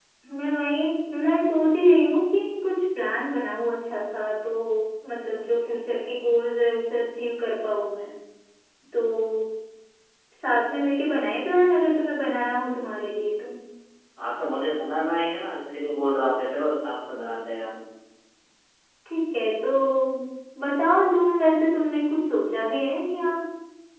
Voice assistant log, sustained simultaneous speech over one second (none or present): none